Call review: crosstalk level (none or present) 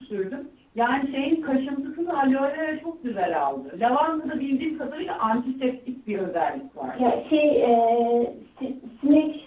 none